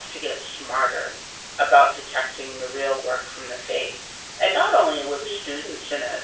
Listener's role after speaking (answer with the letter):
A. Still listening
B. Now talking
A